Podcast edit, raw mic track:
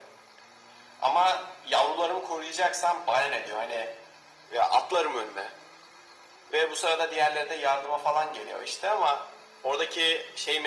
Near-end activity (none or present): none